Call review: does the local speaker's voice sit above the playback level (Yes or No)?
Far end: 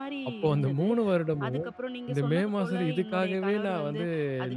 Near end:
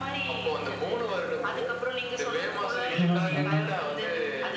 Yes